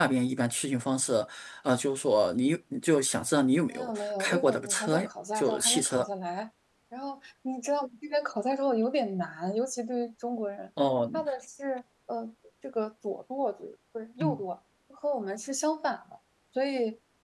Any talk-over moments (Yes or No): Yes